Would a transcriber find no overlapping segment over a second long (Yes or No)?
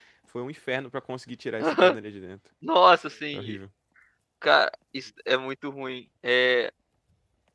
Yes